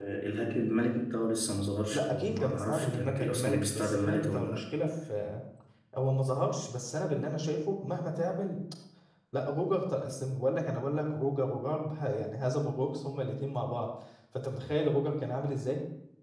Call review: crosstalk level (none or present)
present